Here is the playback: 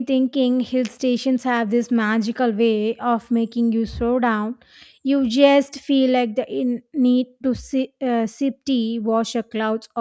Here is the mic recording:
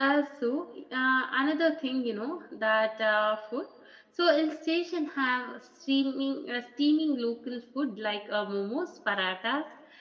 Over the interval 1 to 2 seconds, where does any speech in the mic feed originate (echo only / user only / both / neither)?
user only